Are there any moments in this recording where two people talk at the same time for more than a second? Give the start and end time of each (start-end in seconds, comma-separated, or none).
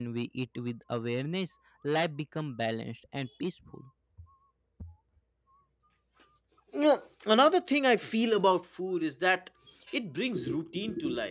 none